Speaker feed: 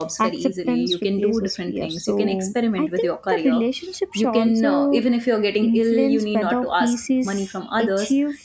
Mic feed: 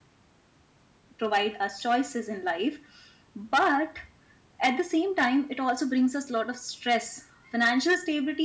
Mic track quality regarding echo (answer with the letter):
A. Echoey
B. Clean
B